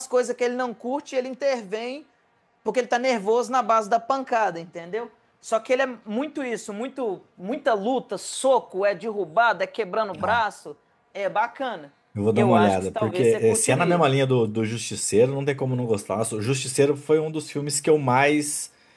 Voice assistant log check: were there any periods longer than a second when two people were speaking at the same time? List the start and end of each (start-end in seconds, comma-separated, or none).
12.3-14.0